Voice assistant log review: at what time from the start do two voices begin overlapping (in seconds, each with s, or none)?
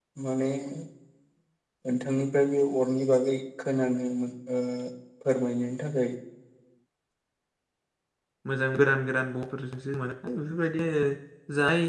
none